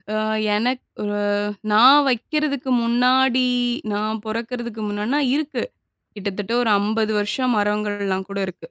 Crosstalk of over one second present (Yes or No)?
No